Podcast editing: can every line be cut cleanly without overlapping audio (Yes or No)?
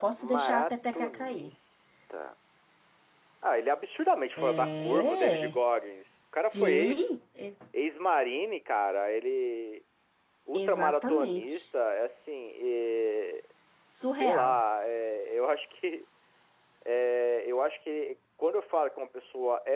No